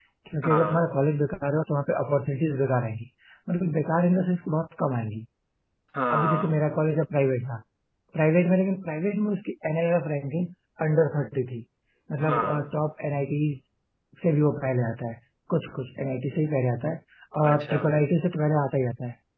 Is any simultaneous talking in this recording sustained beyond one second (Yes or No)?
No